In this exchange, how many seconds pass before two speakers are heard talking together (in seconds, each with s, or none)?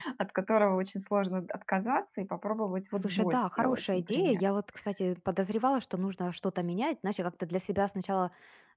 3.0 s